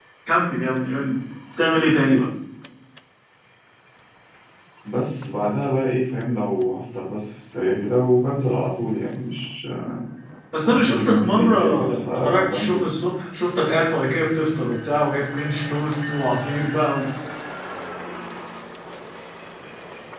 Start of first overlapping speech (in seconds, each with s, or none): 10.6 s